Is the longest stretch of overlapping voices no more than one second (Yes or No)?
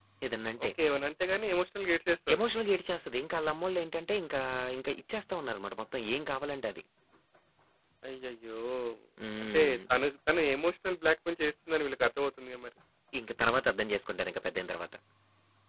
Yes